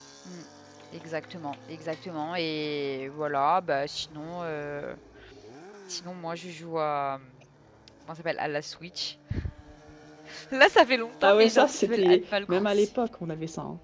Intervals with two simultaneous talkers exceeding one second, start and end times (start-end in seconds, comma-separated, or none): 11.2-12.9